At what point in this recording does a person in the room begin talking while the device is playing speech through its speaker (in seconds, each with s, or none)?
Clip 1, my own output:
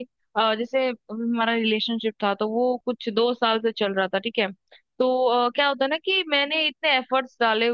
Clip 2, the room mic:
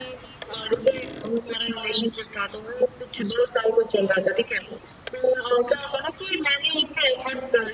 none